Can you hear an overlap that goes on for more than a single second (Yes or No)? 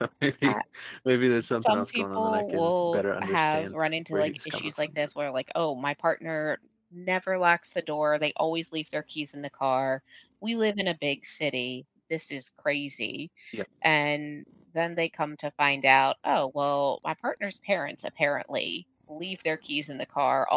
Yes